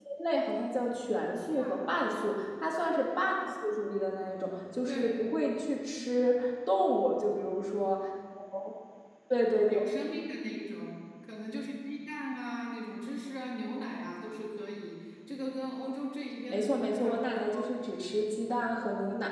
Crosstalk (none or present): present